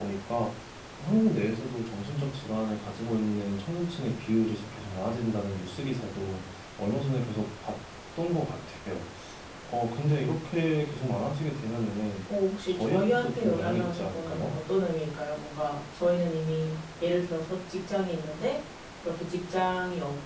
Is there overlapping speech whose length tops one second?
Yes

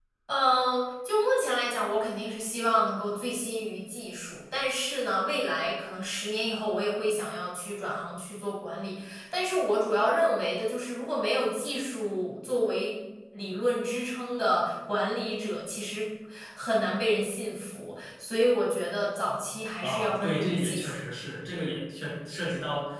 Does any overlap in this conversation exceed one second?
Yes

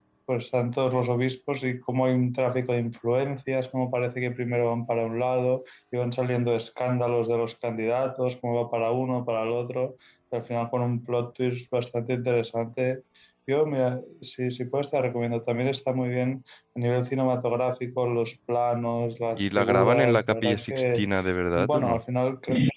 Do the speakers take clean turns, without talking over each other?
No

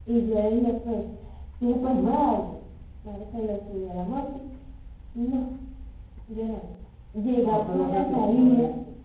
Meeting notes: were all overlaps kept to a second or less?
No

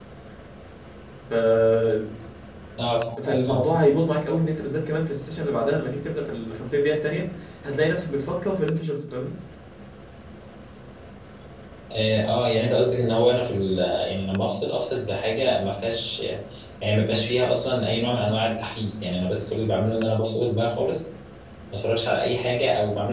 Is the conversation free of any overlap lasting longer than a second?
Yes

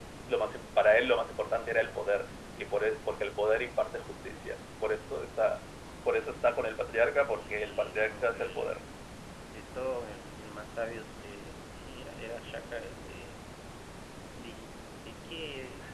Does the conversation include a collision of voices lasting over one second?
Yes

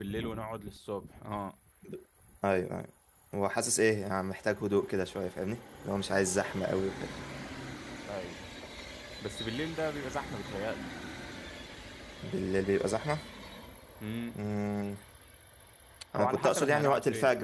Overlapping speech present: Yes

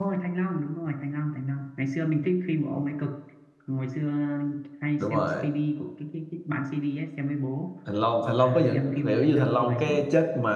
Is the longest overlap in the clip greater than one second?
Yes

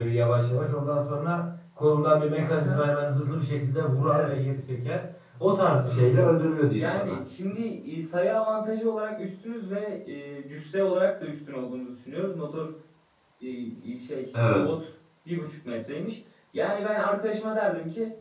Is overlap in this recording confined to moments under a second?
Yes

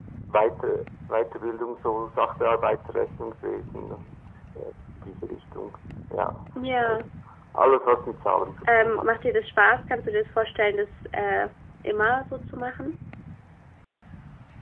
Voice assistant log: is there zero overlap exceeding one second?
Yes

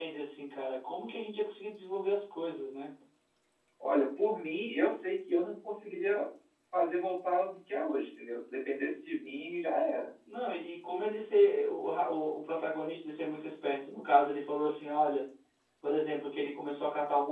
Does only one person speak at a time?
Yes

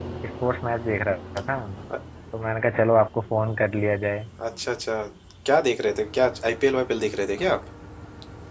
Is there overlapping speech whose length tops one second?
No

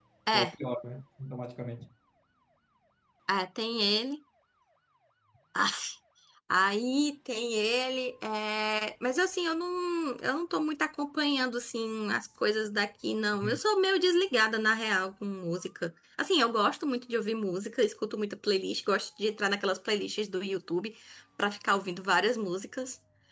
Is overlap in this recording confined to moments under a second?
Yes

